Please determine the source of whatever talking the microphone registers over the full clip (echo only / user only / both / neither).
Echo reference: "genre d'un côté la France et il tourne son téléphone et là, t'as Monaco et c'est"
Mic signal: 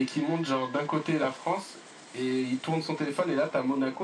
echo only